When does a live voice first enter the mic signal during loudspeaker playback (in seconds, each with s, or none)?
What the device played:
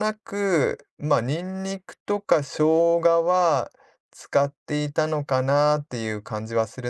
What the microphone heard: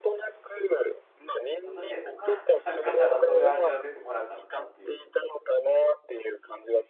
1.6 s